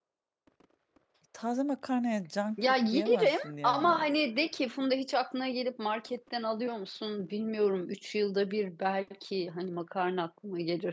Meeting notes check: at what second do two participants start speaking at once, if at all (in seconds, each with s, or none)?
2.6 s